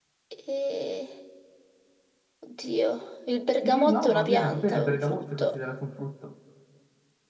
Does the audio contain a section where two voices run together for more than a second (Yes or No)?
Yes